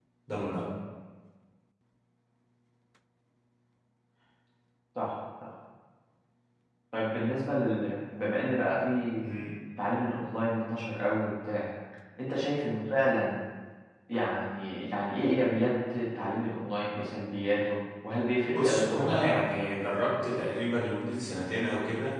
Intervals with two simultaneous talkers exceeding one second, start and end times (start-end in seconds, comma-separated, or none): 18.5-19.8